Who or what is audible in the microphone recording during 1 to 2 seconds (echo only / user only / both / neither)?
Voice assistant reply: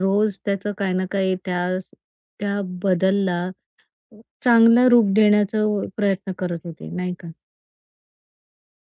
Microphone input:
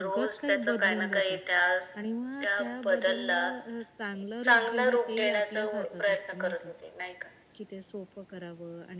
both